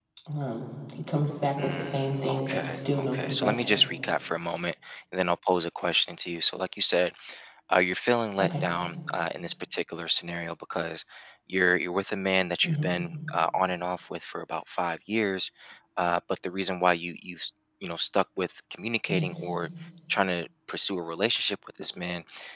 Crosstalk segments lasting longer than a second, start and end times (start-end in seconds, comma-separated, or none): 1.6-3.9